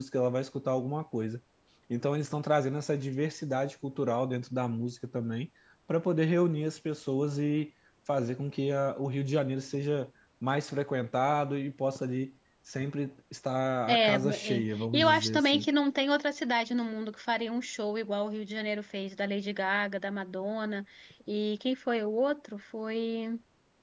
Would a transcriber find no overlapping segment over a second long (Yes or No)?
No